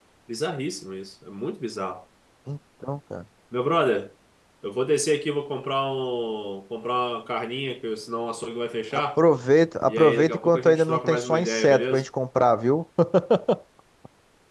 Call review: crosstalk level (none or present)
present